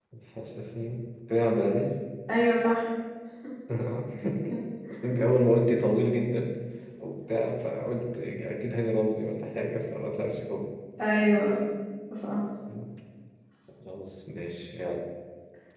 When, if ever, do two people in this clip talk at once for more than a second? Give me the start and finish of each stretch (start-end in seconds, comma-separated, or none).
none